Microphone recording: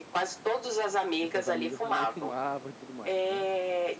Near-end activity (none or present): present